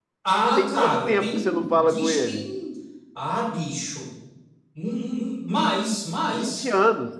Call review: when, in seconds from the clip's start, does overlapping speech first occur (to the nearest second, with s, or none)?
1 s